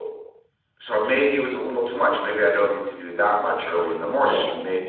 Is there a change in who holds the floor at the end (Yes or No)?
No